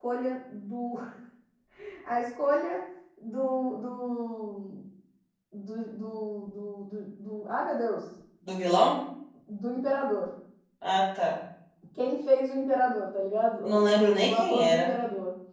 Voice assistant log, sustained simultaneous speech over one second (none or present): present